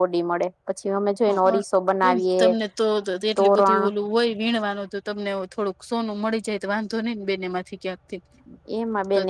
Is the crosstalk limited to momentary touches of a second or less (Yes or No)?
Yes